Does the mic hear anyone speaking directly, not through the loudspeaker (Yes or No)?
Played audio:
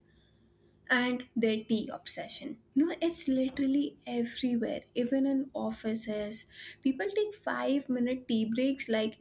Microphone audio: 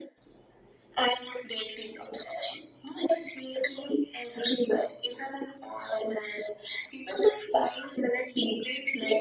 No